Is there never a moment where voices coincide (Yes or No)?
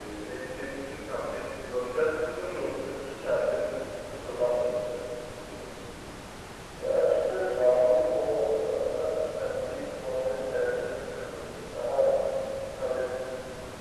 Yes